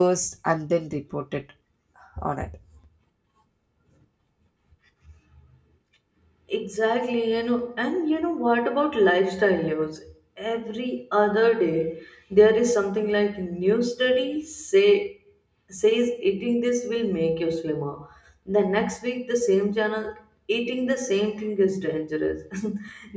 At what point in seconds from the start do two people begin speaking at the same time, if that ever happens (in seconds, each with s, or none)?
none